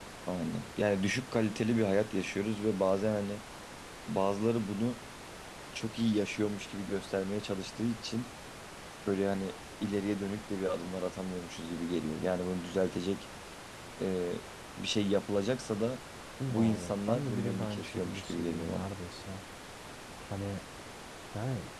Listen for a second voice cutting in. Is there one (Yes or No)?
Yes